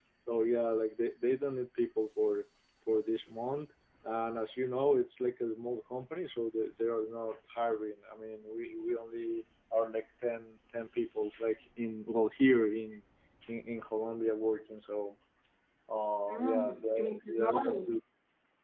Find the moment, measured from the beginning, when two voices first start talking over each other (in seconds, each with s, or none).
16.3 s